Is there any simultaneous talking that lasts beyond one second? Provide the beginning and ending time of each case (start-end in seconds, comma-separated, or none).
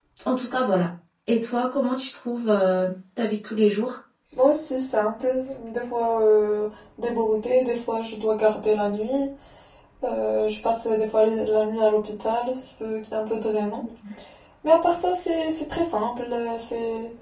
none